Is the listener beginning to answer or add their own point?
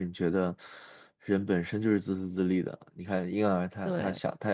No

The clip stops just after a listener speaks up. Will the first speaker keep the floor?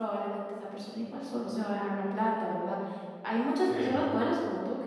Yes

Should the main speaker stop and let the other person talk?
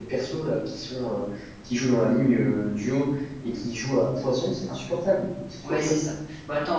Yes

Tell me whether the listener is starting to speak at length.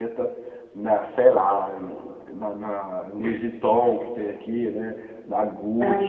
No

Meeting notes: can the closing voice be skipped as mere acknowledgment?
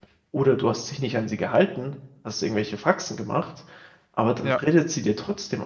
Yes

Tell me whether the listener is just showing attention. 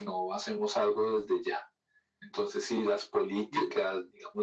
Yes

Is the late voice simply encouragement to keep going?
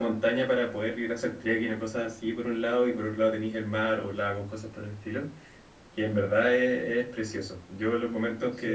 No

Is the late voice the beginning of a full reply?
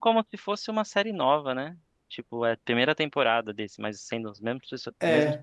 Yes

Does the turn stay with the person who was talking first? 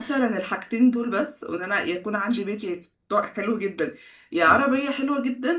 Yes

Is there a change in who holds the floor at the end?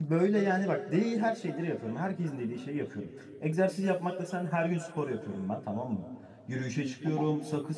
No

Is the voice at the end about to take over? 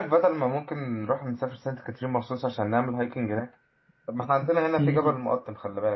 No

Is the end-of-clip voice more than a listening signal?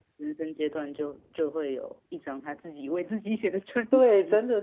Yes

